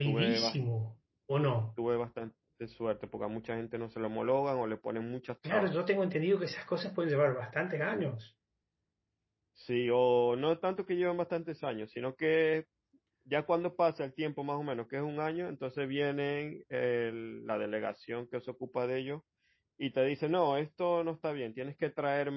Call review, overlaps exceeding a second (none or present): none